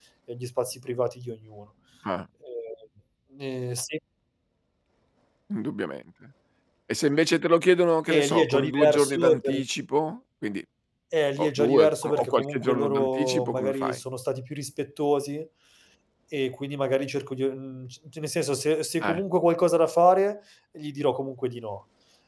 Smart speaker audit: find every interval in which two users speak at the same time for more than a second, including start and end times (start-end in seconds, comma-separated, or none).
8.1-9.6, 11.4-14.0